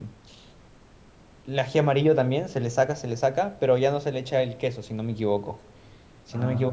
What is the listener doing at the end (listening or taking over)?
listening